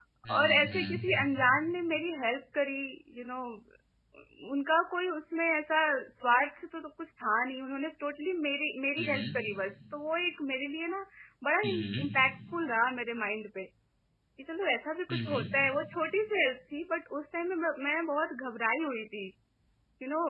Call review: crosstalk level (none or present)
present